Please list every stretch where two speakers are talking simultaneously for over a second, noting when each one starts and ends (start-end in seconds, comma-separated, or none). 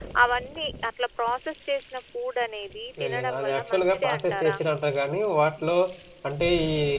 3.0-4.6